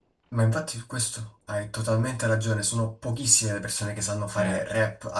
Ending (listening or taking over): listening